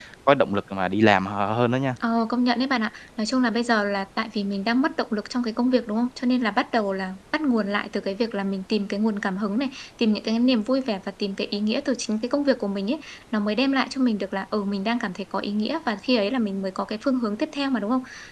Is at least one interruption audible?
No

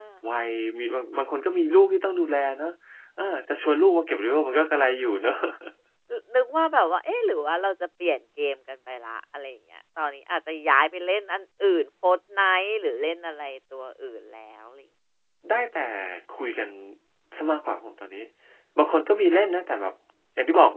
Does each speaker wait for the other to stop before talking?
Yes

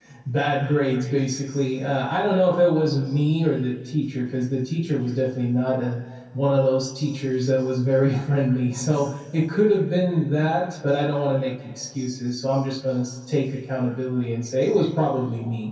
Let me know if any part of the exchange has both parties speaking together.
No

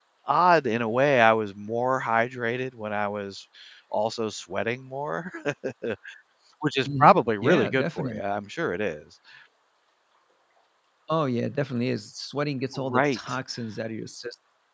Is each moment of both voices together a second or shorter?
No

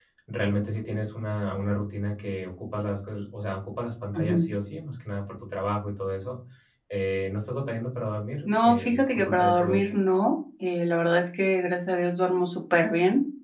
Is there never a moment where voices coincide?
No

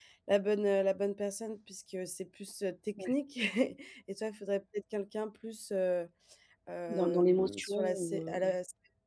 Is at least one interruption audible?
Yes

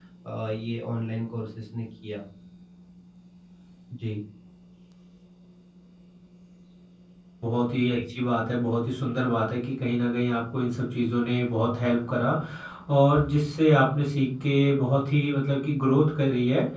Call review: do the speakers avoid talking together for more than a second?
Yes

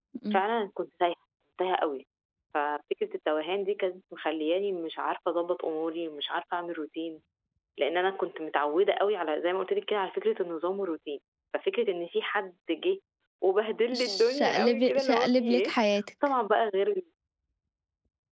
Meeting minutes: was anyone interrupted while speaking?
Yes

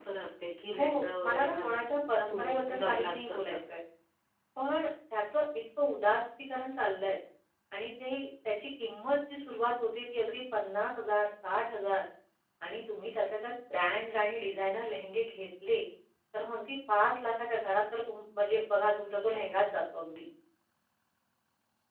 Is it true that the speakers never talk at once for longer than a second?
No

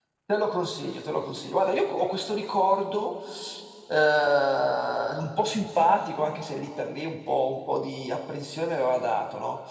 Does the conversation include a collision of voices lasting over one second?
No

